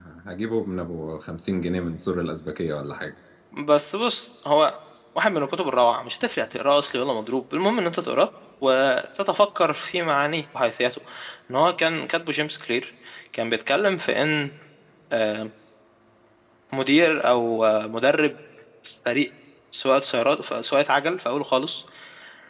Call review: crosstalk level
none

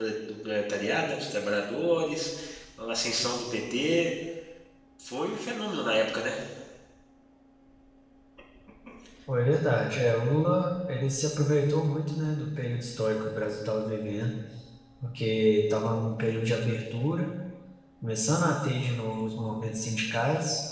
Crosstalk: none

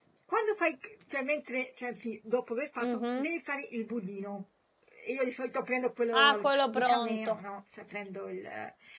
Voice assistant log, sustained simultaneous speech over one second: present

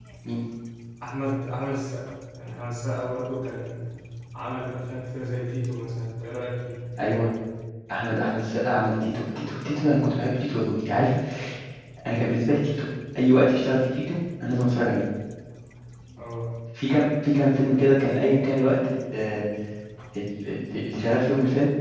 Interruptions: none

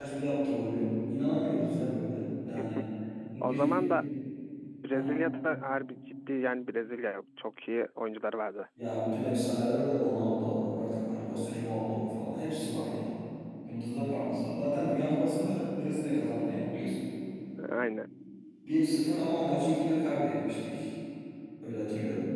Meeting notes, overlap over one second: none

